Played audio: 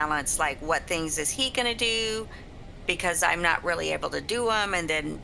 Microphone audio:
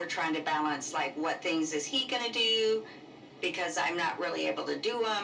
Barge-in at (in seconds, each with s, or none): none